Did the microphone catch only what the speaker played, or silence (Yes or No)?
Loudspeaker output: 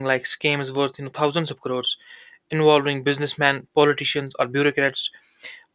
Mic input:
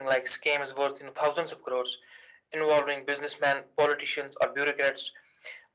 Yes